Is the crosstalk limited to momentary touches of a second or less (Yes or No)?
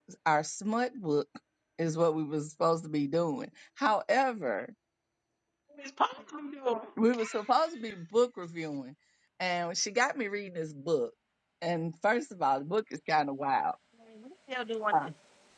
Yes